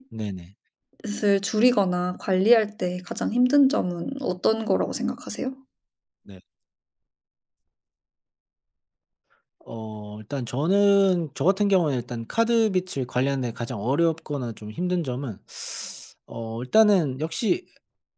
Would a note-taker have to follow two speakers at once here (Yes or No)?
No